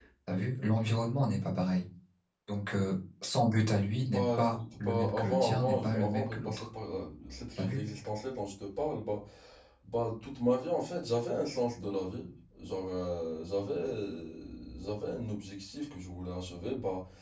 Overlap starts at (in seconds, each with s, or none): 3.9 s